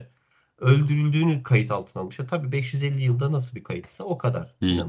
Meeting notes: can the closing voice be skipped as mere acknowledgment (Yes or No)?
No